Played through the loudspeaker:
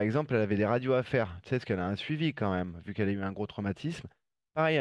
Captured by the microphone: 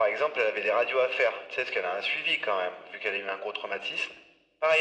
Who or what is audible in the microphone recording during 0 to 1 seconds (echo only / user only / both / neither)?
echo only